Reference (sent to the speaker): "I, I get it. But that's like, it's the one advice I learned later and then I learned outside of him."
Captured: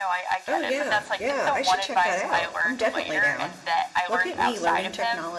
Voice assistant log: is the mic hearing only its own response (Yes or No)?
No